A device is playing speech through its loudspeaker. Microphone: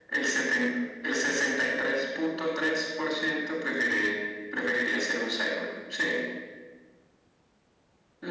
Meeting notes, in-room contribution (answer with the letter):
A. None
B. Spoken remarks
A